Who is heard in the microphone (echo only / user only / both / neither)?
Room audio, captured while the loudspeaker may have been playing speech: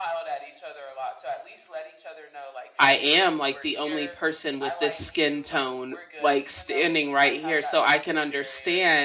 both